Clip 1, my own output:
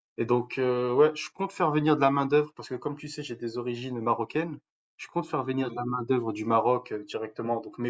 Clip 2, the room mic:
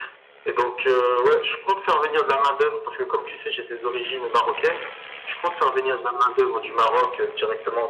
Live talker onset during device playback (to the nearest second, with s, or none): none